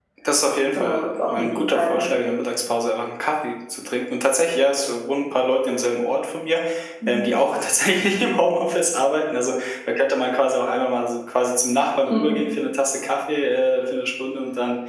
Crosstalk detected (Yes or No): Yes